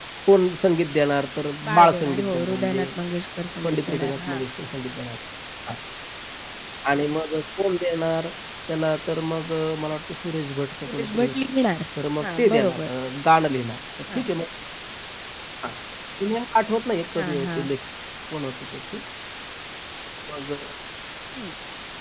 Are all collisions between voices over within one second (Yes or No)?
No